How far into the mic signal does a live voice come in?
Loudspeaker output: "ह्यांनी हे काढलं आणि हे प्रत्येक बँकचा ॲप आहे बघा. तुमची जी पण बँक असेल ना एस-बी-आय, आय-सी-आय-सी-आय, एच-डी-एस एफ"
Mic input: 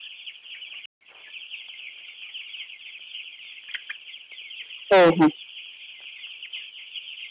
4.9 s

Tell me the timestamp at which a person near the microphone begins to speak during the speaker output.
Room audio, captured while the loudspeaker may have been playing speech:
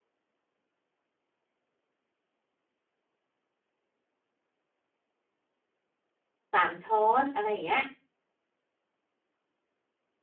6.5 s

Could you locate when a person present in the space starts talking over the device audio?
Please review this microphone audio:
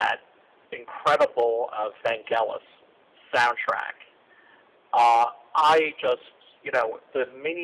none

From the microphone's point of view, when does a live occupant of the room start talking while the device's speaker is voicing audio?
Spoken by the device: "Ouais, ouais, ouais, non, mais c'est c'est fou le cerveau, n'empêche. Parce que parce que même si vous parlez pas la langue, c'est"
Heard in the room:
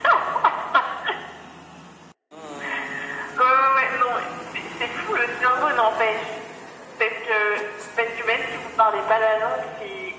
none

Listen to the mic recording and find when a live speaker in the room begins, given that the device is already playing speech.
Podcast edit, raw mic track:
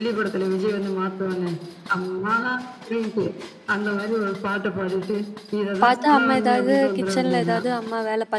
5.8 s

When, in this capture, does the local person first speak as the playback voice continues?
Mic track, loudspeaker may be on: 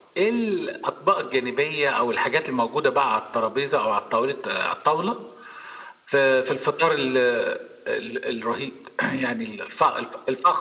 none

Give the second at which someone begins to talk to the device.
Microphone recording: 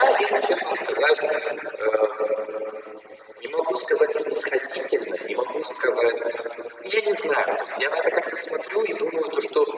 none

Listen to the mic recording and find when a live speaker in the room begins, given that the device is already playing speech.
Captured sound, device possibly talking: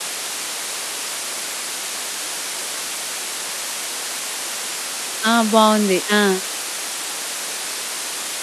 5.3 s

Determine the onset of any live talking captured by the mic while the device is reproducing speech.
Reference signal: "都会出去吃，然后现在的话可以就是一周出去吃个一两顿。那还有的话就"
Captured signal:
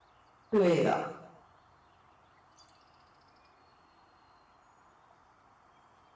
0.5 s

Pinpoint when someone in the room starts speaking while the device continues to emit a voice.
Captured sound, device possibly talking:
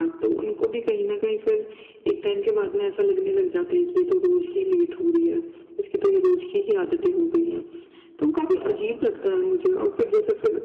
none

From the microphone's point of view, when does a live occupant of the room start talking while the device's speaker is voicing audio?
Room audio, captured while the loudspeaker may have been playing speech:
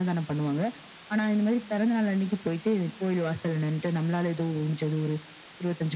none

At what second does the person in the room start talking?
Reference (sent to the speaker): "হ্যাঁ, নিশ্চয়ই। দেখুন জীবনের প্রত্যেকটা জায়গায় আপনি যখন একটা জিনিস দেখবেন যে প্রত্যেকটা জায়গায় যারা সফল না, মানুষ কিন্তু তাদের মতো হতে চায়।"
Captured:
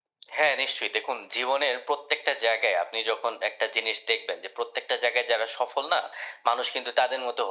none

